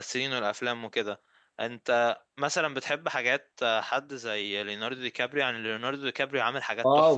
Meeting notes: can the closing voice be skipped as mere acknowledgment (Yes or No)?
No